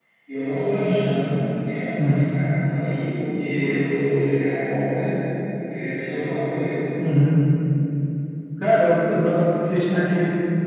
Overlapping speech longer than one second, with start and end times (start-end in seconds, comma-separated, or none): none